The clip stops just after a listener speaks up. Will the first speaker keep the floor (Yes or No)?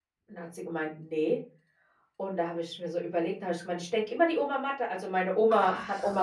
Yes